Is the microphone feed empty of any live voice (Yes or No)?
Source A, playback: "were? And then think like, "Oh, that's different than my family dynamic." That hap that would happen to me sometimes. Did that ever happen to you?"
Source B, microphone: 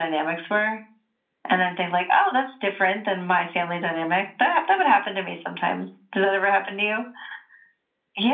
Yes